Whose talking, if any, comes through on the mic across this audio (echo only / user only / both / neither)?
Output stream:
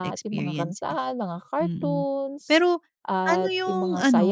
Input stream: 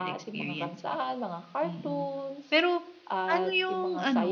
echo only